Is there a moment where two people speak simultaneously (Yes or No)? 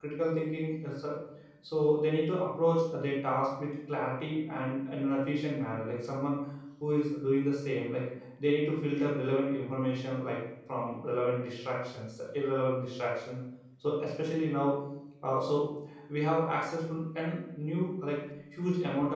No